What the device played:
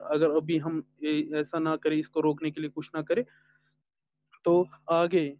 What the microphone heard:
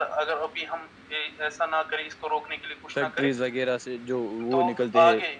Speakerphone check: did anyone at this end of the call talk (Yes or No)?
Yes